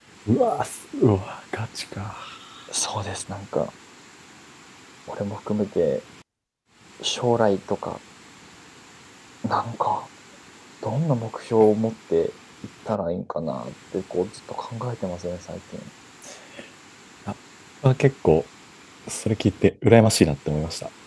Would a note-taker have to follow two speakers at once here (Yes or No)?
No